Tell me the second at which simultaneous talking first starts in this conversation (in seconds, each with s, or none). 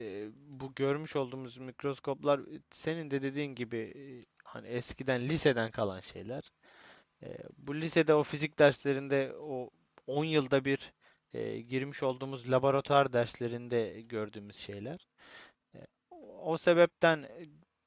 none